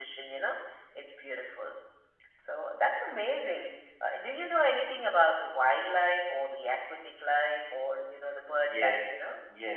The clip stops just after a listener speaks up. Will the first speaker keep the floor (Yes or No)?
No